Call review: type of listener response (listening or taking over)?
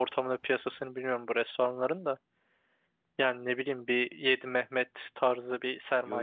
taking over